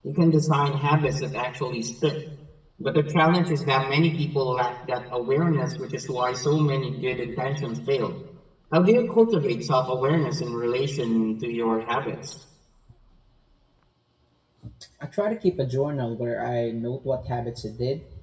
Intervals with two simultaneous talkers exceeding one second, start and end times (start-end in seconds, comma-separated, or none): none